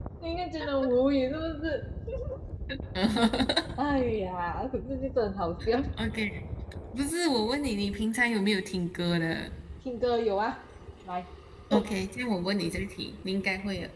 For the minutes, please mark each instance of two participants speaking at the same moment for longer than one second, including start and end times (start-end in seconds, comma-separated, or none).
none